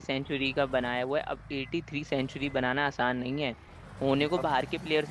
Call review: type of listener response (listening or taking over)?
listening